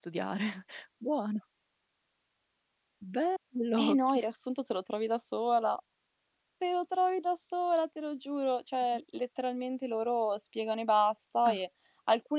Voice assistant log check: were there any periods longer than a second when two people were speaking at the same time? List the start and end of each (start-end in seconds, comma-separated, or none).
none